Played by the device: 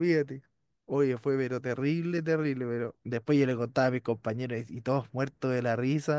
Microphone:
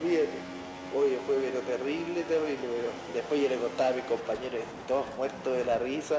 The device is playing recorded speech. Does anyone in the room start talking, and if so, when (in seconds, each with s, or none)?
none